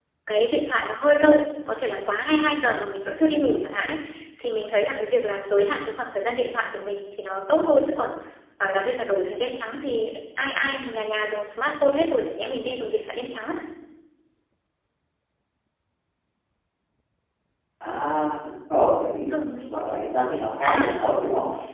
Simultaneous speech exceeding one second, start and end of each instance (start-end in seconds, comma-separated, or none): none